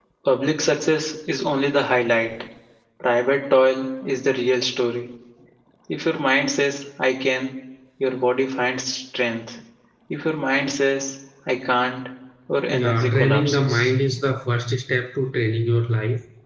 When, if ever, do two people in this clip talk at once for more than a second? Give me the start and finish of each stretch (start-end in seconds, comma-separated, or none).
12.7-13.9